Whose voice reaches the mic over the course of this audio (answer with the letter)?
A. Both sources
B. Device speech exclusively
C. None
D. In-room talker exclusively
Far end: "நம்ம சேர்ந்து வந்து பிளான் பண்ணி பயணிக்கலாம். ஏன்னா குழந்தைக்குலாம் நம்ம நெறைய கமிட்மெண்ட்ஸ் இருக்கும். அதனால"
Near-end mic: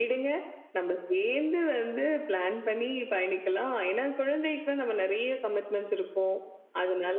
B